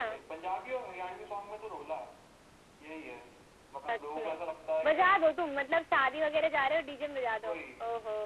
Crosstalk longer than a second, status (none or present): none